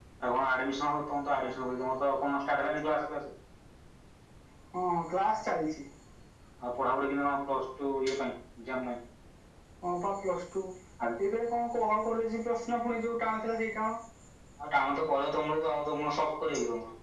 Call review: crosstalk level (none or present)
none